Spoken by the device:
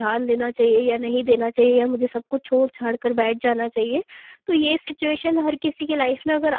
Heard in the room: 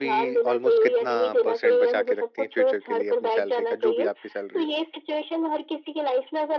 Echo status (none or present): present